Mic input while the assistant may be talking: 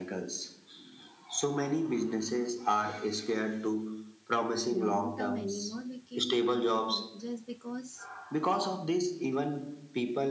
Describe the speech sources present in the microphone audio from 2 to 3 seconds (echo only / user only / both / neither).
echo only